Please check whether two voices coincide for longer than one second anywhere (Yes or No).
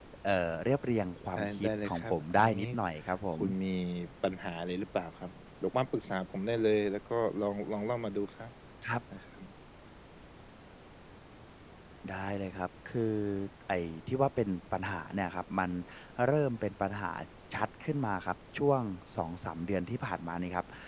Yes